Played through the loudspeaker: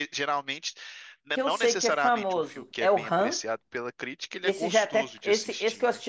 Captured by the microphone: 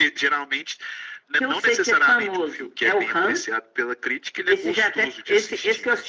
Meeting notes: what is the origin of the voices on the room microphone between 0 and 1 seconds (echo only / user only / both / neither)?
echo only